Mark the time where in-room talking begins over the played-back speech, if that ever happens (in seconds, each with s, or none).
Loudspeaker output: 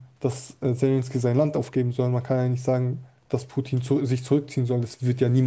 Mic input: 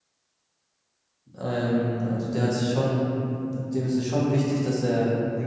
1.4 s